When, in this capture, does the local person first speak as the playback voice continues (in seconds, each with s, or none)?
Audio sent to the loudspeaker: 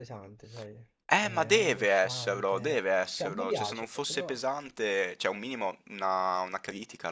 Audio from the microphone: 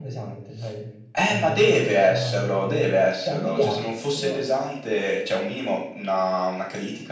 none